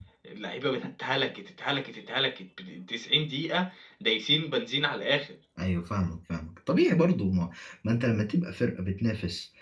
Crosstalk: none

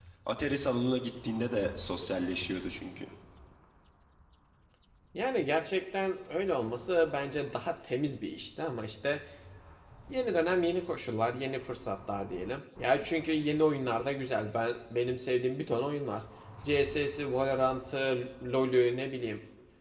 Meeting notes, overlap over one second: none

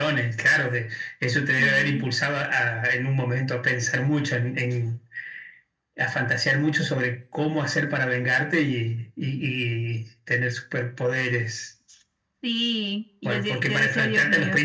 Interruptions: present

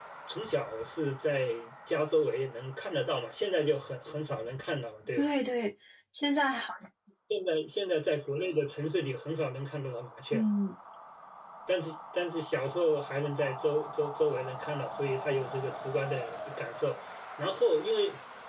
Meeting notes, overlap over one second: none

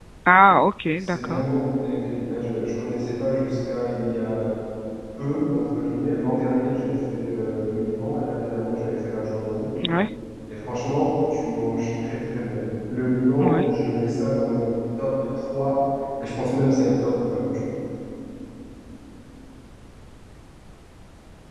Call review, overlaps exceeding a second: none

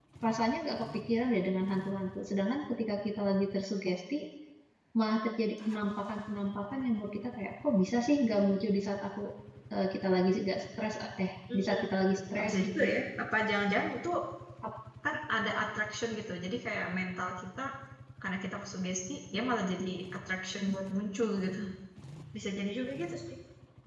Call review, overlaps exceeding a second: present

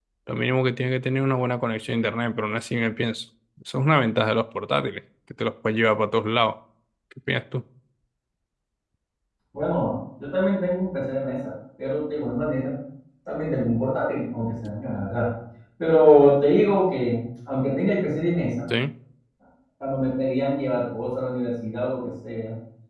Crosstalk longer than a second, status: none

